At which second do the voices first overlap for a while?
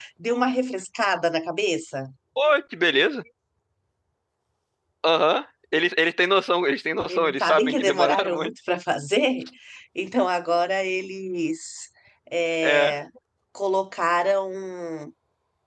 7.1 s

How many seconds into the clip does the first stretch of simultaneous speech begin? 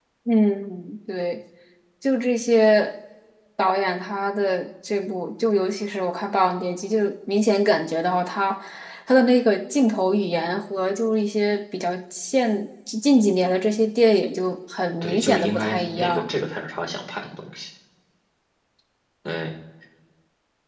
15.0 s

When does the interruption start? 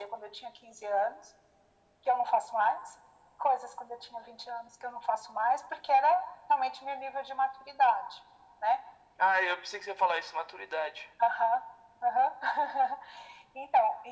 none

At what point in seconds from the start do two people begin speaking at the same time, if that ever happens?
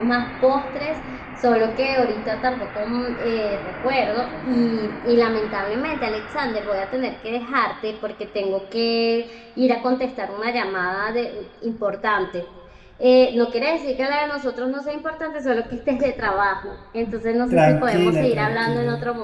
17.5 s

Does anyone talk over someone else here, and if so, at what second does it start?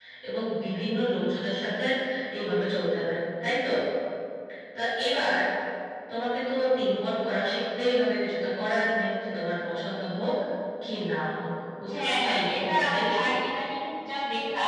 11.9 s

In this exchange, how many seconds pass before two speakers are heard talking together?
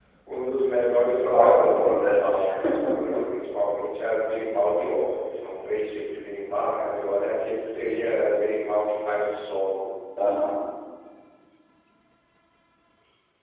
1.3 s

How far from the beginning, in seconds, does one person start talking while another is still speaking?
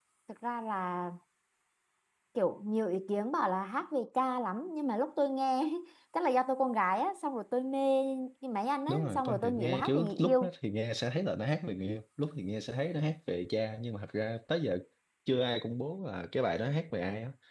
8.9 s

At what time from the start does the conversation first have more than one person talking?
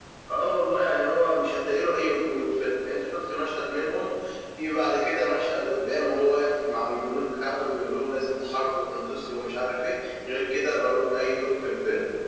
none

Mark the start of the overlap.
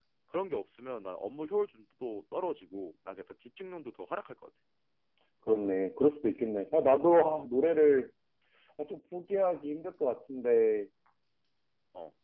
none

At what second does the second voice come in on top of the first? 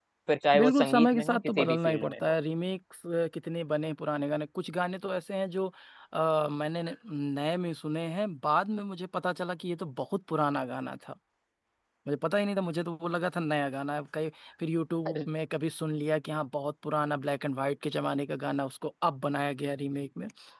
0.6 s

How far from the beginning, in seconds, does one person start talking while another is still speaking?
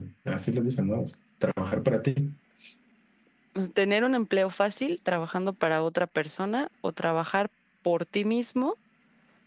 none

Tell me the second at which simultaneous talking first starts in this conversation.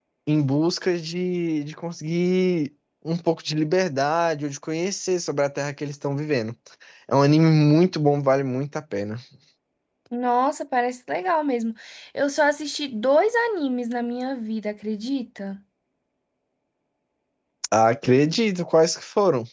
none

